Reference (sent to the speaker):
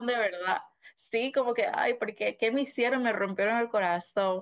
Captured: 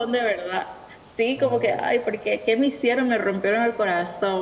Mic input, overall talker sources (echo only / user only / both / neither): both